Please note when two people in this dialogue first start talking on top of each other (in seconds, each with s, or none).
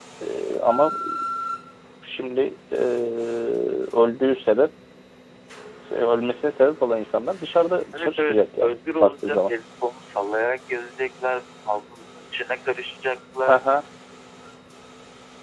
7.9 s